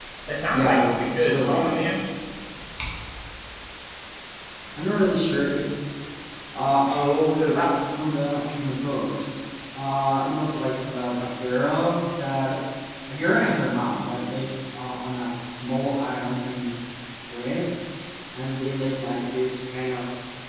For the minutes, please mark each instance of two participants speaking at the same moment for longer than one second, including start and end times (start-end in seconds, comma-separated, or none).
0.5-1.8